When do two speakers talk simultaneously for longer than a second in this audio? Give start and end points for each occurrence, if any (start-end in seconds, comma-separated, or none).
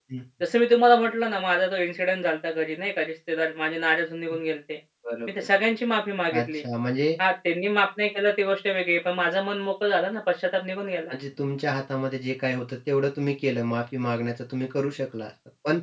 none